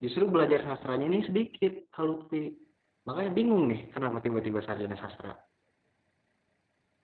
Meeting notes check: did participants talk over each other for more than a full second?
No

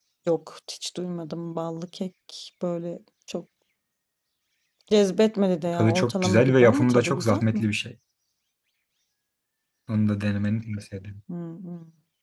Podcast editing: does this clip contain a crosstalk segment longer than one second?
Yes, from 5.7 s

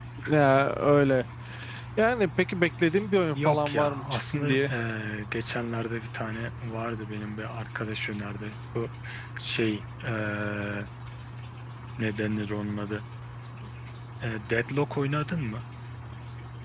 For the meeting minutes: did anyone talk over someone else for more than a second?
Yes, from 3.3 s

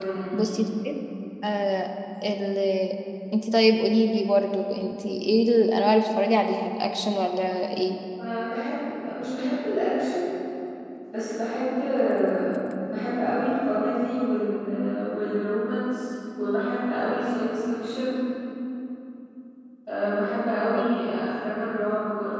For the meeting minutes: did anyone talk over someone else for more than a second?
No

